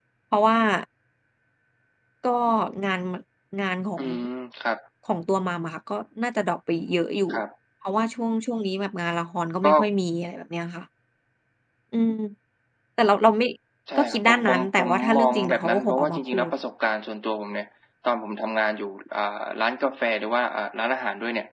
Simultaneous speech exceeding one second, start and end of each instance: 13.9-16.5

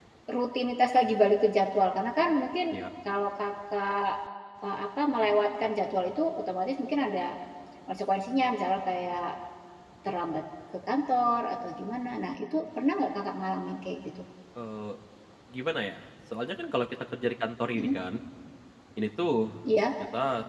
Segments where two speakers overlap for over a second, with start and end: none

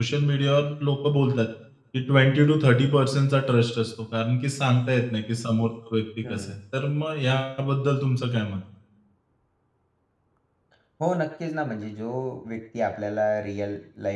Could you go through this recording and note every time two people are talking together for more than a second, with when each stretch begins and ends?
none

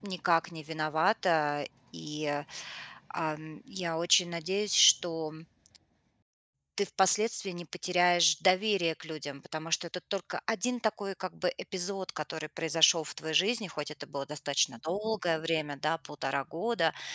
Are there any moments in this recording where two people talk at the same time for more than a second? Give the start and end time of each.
none

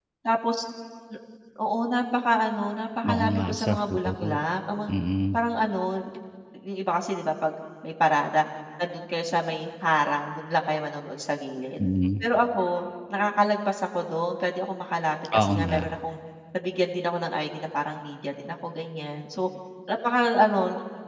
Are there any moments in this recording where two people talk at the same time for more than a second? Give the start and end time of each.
3.0-4.4

